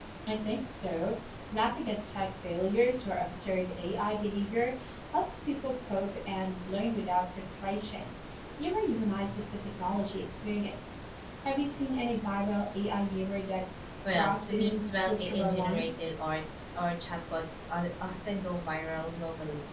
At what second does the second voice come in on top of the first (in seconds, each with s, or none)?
14.1 s